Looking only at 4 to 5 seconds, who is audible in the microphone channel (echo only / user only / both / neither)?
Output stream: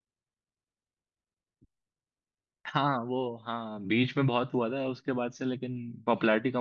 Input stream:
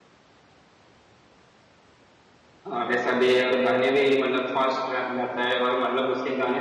user only